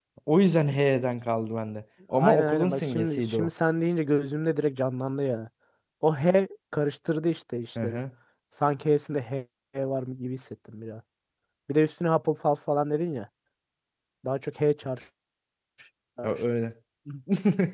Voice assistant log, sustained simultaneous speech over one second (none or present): present